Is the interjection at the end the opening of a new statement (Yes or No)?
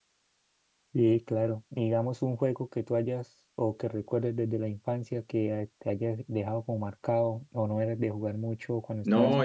Yes